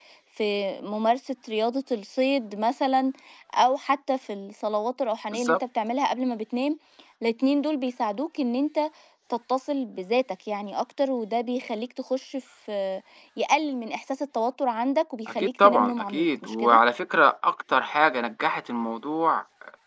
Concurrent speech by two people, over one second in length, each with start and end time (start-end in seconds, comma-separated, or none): 15.3-16.8